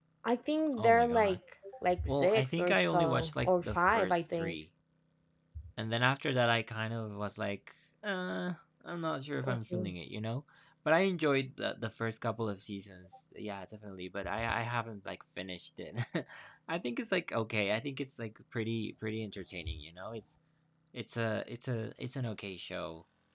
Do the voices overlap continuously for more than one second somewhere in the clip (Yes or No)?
Yes